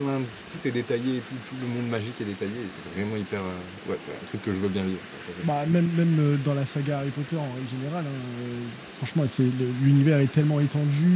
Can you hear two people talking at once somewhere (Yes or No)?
No